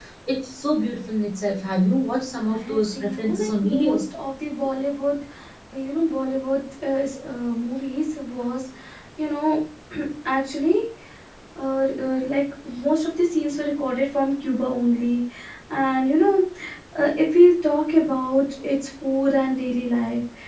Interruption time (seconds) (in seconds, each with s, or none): 2.4 s